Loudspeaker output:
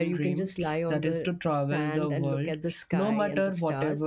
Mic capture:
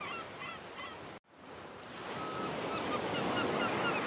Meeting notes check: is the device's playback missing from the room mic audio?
Yes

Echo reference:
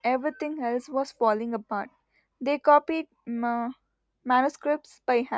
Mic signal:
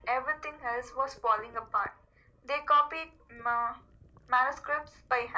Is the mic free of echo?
No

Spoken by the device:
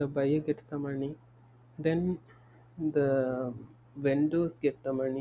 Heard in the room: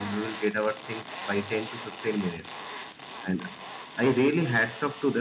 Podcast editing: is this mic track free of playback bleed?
Yes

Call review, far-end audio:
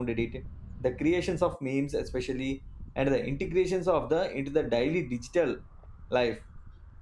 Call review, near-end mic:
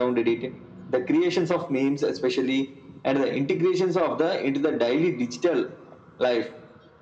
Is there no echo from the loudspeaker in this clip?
No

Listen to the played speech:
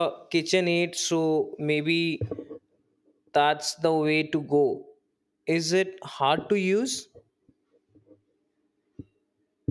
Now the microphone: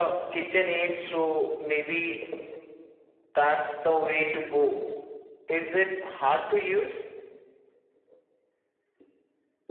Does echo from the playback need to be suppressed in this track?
Yes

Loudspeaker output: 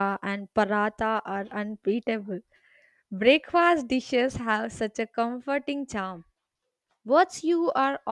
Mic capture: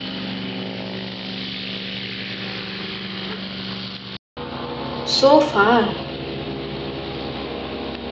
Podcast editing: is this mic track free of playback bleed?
Yes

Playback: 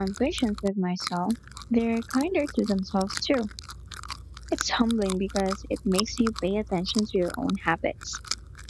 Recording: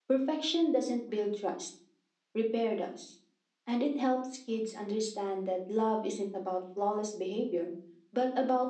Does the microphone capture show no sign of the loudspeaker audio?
Yes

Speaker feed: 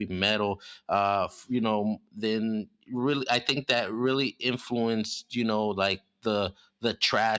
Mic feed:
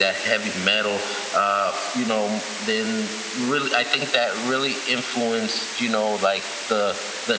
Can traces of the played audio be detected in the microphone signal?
Yes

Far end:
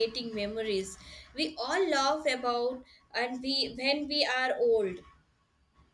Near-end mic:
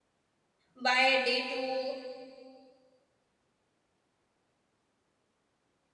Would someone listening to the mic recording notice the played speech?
No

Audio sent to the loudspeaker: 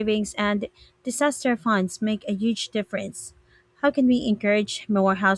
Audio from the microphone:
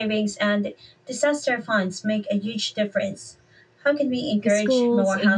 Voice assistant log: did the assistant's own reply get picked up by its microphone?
Yes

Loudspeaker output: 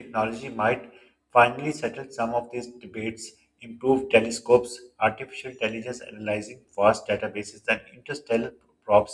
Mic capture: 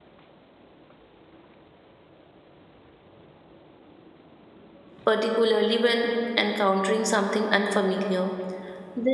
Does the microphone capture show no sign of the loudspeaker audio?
Yes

